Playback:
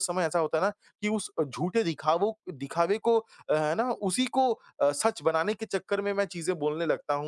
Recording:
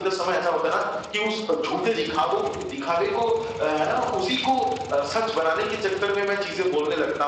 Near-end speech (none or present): none